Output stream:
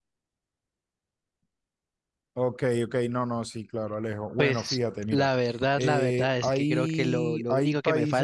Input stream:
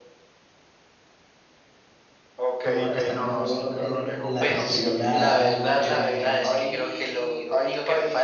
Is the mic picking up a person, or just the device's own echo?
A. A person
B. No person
A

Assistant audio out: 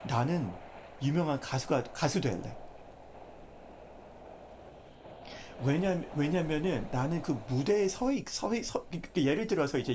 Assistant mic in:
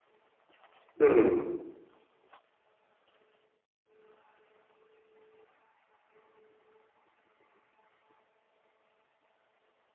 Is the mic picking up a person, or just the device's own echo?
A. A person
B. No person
A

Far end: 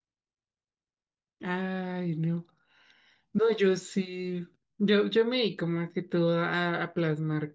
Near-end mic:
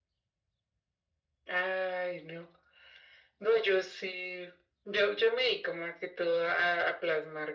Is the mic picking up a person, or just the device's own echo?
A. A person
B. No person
B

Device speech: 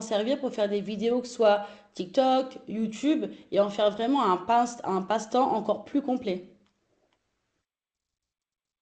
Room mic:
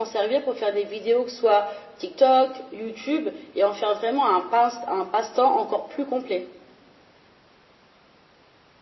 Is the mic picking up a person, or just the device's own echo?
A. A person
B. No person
B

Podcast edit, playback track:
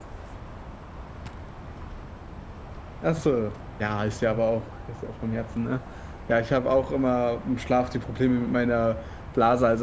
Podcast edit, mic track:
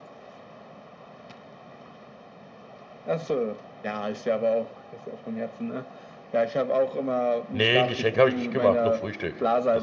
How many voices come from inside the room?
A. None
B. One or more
B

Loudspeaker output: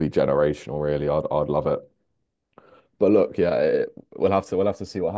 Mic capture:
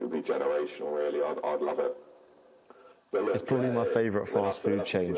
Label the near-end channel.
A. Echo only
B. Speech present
B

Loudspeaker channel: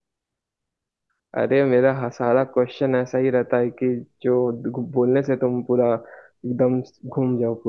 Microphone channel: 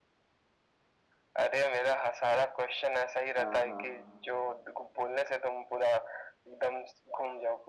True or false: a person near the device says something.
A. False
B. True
B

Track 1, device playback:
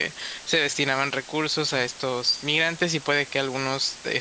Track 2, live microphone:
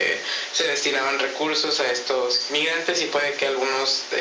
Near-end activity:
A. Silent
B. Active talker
A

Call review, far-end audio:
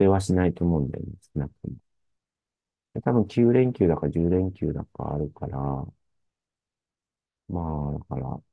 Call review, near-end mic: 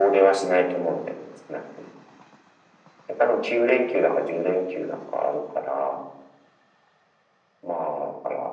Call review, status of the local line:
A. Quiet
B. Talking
A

